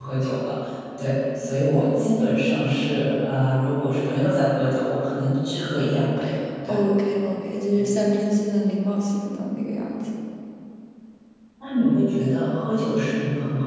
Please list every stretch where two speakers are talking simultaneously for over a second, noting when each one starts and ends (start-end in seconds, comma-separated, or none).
none